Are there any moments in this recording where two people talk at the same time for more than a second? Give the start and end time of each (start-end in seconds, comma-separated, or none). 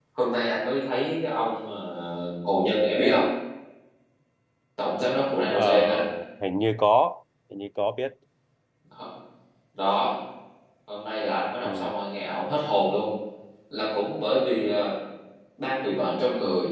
none